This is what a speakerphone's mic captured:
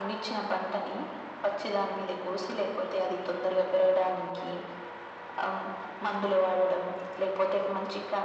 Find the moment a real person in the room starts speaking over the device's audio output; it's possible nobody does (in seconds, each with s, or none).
none